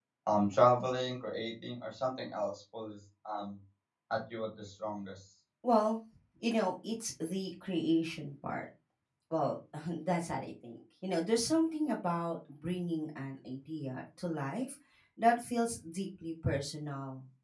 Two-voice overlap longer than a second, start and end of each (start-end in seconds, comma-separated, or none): none